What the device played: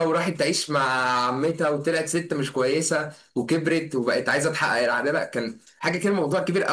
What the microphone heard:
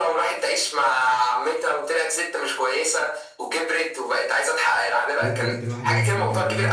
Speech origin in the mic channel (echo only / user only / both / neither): both